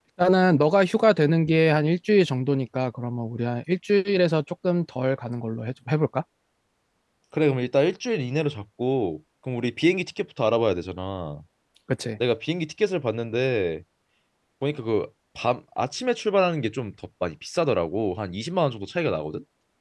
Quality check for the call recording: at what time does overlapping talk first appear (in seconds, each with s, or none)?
none